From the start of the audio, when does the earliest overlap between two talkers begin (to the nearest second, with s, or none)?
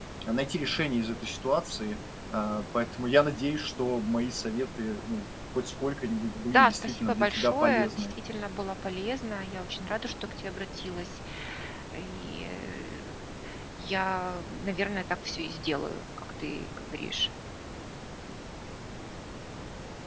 7 s